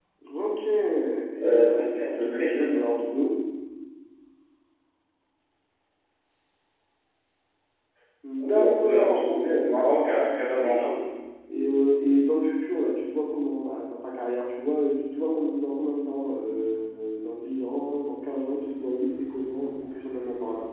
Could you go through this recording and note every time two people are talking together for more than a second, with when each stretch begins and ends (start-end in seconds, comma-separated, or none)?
1.5-2.8, 8.4-10.0